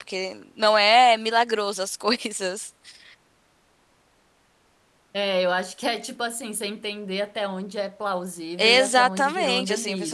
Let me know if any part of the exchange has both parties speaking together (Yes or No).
Yes